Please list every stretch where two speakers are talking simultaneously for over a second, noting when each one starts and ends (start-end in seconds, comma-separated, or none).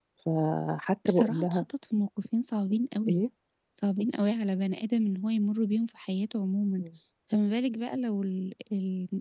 none